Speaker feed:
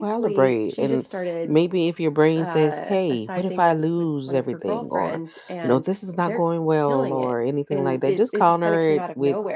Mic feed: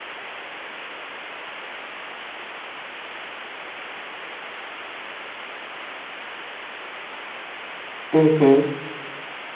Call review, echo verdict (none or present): none